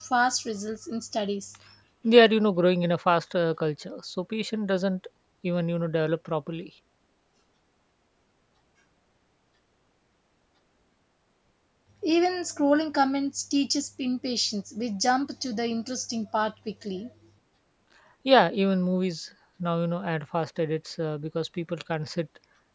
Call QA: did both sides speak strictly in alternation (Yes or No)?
Yes